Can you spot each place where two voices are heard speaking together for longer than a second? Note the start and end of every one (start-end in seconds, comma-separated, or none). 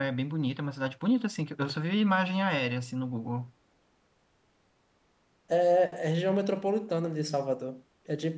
none